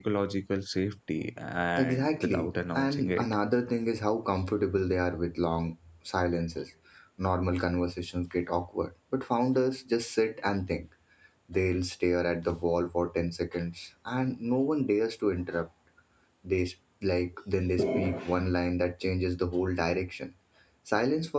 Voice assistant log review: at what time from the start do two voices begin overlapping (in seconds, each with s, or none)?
1.8 s